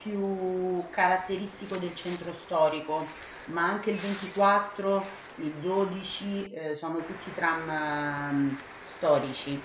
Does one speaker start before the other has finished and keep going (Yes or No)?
No